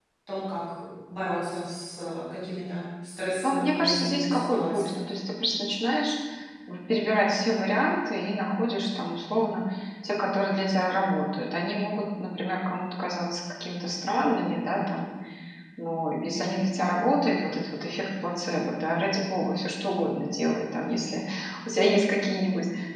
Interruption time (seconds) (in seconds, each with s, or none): 3.4 s